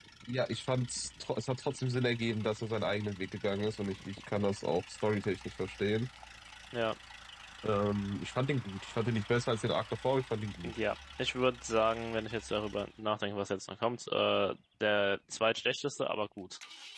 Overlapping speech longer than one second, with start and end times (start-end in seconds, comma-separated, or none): none